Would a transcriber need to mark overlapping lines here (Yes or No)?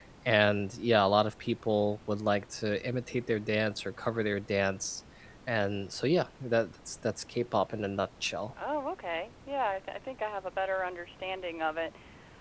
No